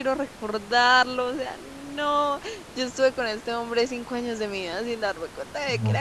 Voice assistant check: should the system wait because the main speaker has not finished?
No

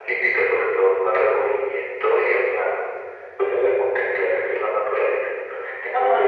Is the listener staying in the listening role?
No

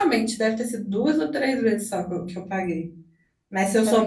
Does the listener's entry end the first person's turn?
Yes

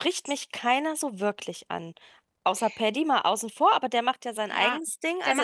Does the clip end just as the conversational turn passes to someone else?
Yes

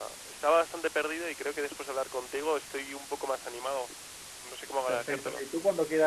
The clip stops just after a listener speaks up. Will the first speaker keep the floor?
No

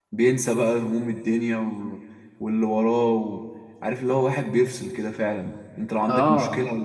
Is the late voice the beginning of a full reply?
No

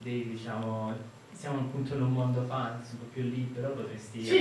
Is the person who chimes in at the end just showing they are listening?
Yes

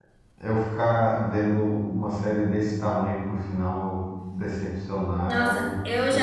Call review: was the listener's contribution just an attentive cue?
No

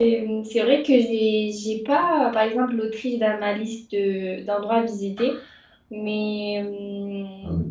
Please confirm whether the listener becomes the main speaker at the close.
Yes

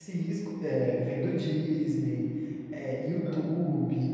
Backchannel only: Yes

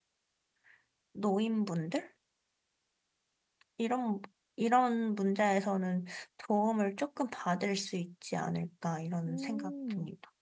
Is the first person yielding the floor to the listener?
Yes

